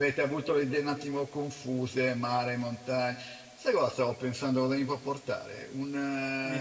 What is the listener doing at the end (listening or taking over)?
listening